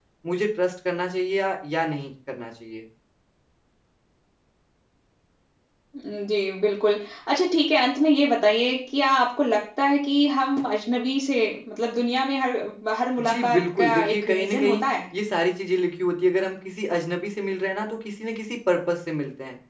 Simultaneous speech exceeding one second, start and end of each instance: 13.2-14.8

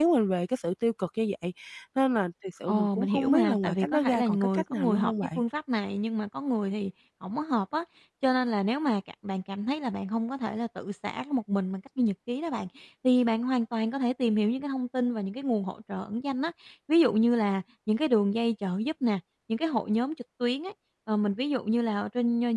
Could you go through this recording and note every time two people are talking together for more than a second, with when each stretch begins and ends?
2.7-5.4

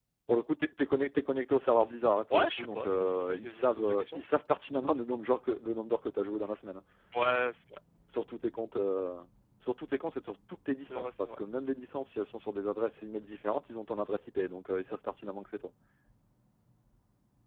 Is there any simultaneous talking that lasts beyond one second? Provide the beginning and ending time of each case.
2.3-4.3

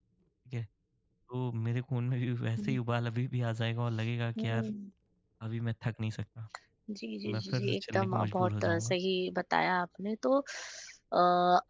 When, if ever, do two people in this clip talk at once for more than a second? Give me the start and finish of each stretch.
7.3-8.9

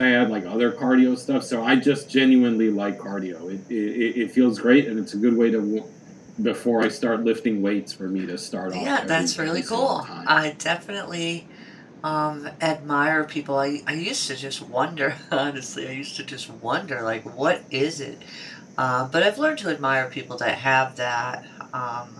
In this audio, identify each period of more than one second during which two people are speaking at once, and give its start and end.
8.7-10.3

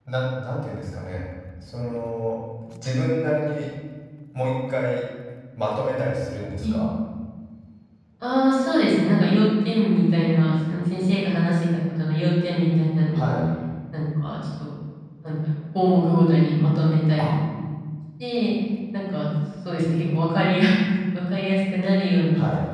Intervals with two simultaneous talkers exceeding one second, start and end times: none

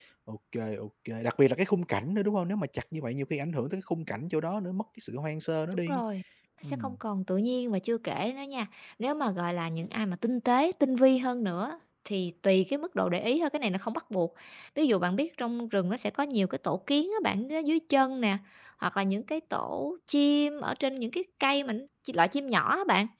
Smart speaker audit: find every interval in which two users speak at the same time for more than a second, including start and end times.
none

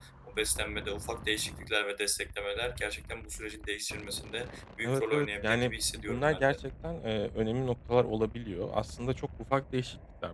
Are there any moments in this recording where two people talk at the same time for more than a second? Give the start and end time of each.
4.8-6.6

